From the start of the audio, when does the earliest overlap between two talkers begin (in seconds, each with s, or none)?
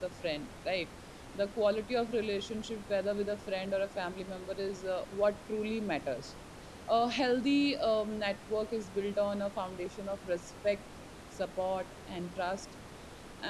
none